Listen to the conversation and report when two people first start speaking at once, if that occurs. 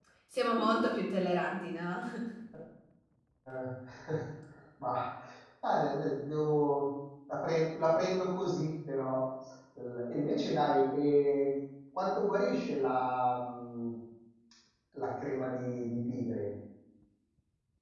none

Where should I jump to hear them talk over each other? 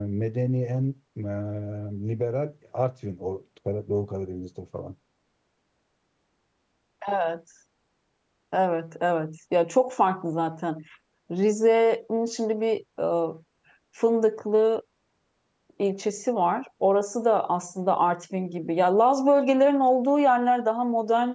none

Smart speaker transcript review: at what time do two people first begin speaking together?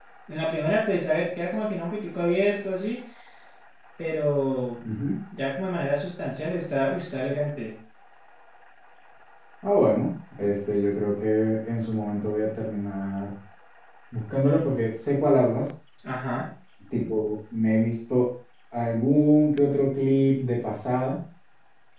none

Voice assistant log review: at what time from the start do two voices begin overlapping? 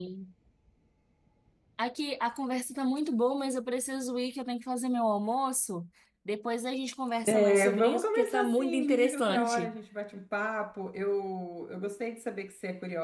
7.2 s

